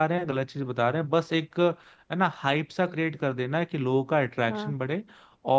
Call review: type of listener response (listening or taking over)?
listening